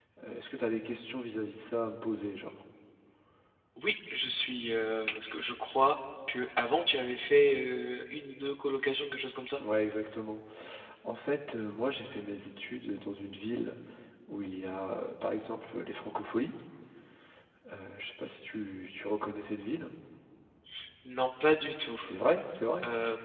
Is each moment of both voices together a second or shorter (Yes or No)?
Yes